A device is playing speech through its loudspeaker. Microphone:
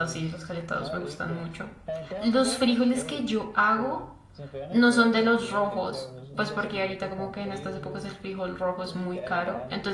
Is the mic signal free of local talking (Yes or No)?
No